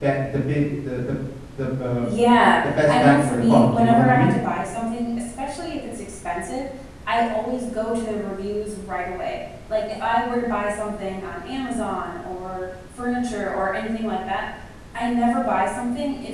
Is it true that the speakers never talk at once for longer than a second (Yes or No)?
No